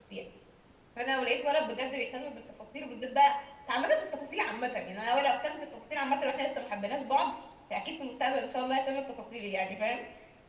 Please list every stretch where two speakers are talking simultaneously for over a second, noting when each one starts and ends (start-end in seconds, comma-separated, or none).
none